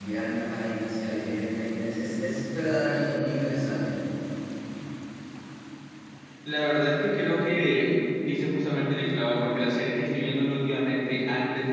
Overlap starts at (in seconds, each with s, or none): none